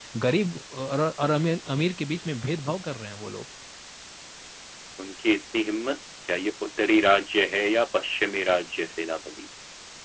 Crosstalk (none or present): none